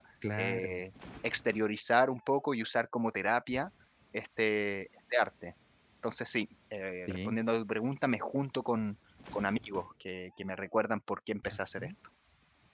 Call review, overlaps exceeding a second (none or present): none